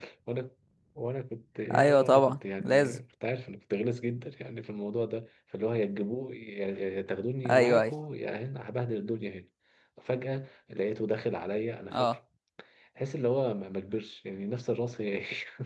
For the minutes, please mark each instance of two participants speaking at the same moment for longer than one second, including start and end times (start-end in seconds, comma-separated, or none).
1.7-3.0